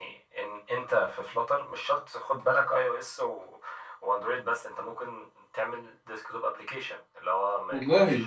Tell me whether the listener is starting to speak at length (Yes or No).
No